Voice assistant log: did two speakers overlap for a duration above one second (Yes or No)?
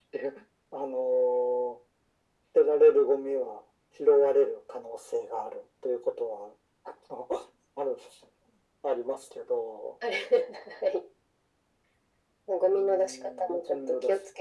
Yes